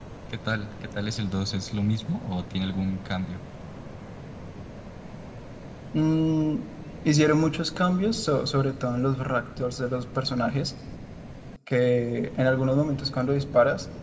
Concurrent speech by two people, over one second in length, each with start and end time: none

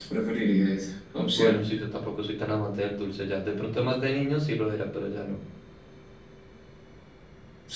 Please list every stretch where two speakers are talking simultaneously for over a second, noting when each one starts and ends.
none

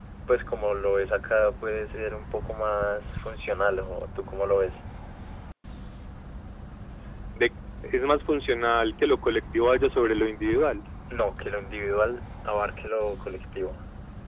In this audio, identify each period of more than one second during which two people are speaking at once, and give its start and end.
none

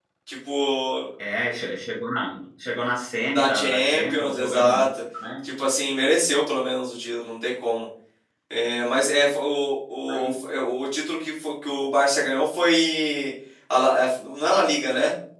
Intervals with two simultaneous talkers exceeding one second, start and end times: 3.3-4.9

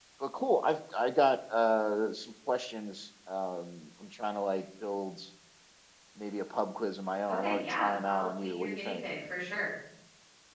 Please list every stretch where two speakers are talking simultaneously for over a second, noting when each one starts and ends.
7.3-9.0

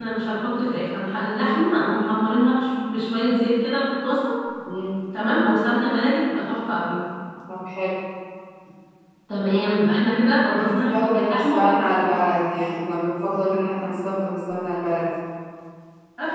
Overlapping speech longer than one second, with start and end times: 10.6-12.1

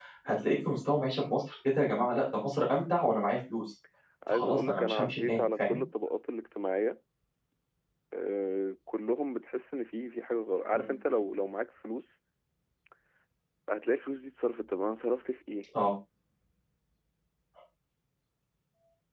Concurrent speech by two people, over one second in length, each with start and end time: 4.3-5.8

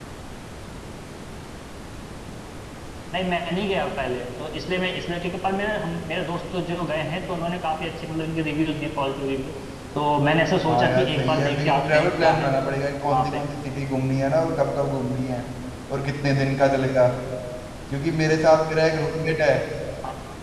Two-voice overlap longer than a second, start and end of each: 10.7-12.5

